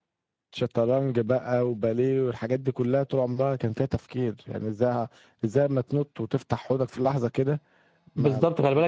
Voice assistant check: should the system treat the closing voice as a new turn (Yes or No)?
Yes